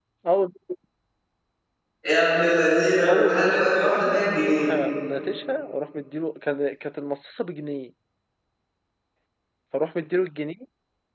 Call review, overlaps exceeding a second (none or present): present